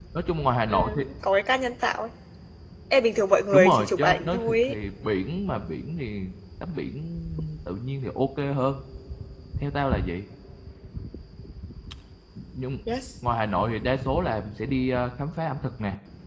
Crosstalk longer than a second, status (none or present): present